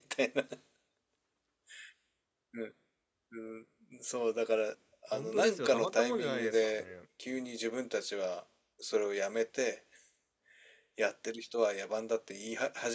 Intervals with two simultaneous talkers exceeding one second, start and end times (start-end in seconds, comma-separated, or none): 5.1-6.8